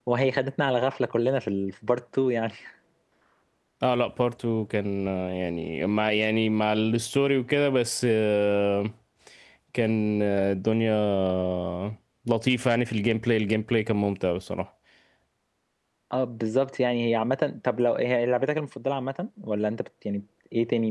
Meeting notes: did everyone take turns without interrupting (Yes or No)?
Yes